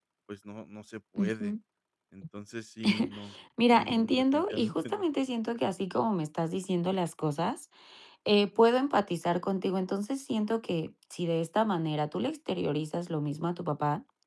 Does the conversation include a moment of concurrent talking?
Yes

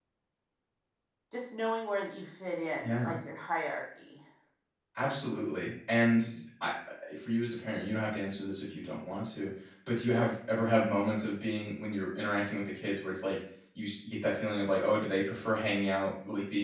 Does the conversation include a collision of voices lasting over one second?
No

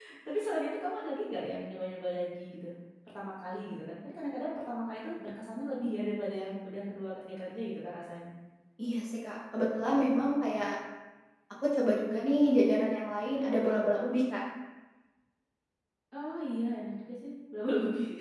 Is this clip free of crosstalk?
Yes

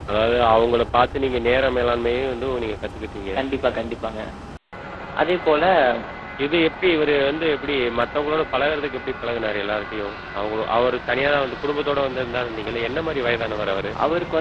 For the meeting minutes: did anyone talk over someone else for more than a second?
No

